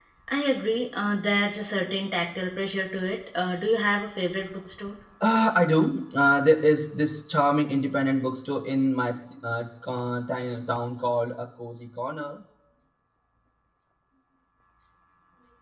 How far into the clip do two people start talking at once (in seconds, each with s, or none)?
none